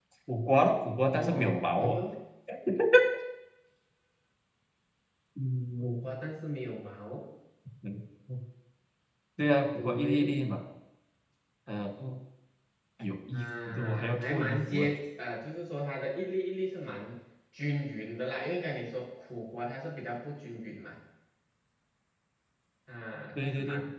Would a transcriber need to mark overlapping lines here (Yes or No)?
Yes